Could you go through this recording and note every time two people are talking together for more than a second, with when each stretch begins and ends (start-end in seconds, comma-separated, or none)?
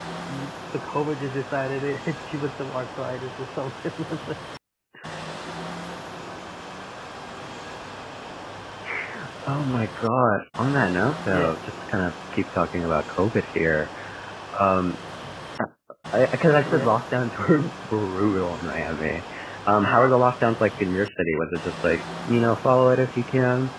none